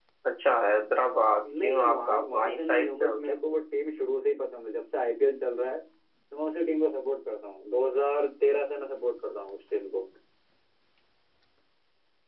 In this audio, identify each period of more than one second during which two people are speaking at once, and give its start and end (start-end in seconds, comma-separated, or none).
1.6-3.2